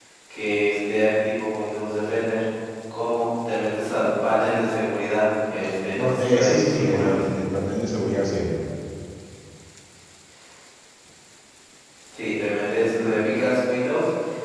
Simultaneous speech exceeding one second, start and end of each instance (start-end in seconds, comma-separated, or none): 5.9-7.2